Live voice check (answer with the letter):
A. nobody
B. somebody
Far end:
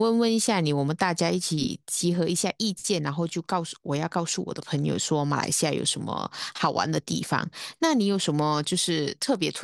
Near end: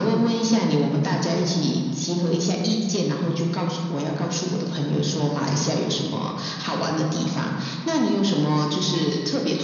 A